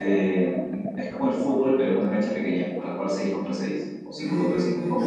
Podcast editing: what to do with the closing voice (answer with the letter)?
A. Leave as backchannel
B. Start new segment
B